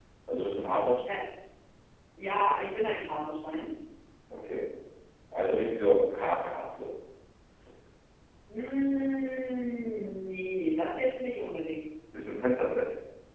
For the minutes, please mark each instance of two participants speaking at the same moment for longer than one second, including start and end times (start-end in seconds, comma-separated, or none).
none